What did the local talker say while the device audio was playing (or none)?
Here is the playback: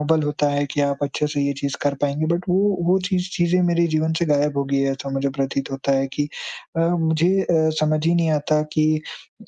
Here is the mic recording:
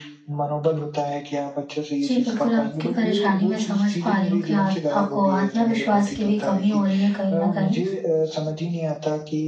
जी, बिल्कुल आपकी परेशानी मैं समझ पा रही हूँ कि आत आपको आत्मविश्वास की भी कमी हो रही है कहीं न कहीं।